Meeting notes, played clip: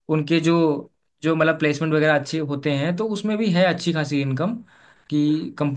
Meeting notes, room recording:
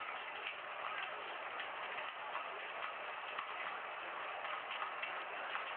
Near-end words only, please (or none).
none